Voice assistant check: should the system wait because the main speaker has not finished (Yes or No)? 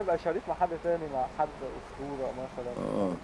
No